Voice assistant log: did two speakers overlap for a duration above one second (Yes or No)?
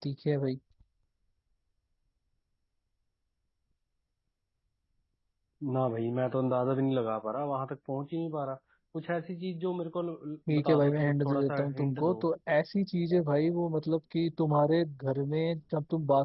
Yes